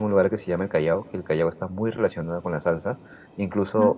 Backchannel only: Yes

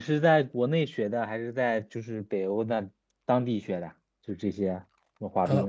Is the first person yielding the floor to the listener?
Yes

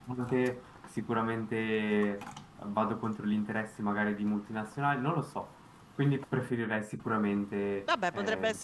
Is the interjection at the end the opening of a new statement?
Yes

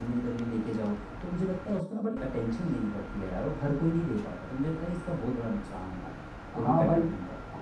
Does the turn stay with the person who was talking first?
No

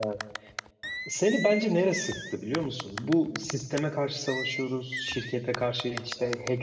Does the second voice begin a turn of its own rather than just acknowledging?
No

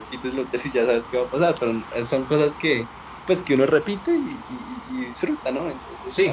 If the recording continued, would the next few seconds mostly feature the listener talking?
Yes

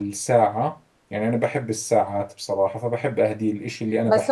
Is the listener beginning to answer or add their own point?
Yes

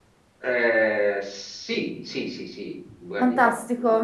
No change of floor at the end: No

